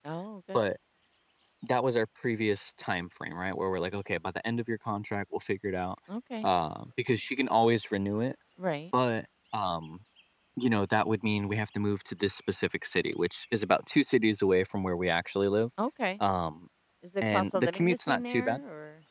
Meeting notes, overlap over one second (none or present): present